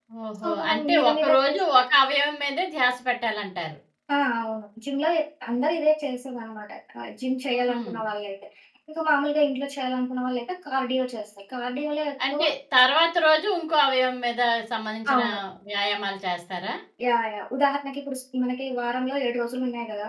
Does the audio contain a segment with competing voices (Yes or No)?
Yes